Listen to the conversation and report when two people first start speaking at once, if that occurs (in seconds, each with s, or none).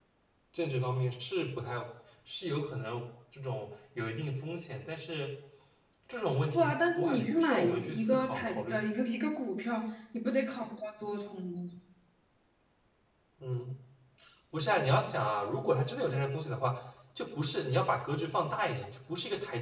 6.5 s